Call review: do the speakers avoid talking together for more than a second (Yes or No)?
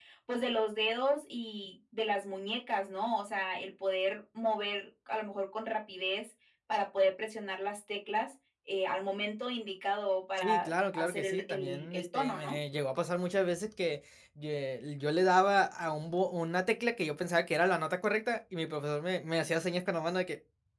No